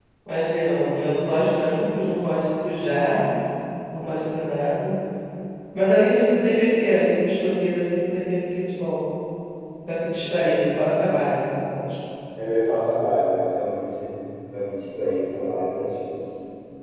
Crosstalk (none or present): none